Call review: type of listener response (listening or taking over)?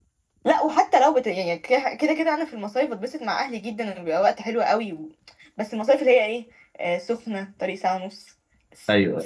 listening